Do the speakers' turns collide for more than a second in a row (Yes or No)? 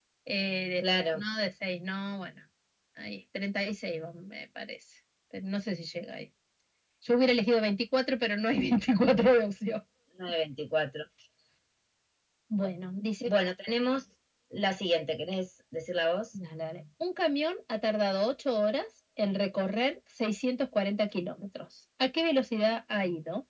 No